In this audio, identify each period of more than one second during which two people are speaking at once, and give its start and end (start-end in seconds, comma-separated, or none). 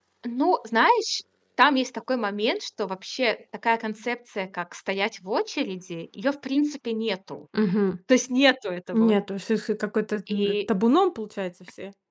none